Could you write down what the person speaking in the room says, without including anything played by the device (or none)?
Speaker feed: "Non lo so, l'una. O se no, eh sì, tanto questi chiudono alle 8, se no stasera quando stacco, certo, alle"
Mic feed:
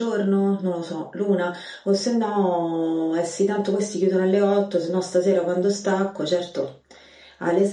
none